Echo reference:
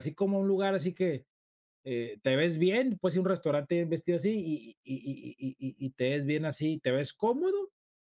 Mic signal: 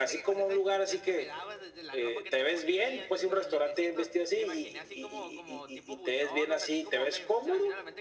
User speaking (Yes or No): Yes